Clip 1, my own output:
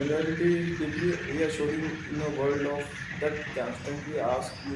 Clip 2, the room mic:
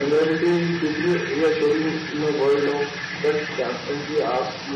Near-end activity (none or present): none